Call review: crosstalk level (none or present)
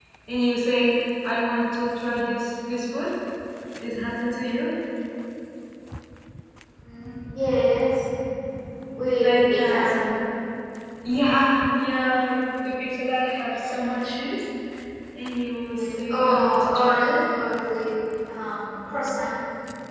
present